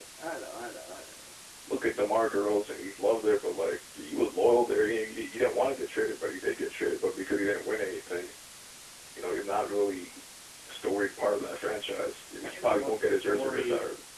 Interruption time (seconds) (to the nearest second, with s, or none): 12 s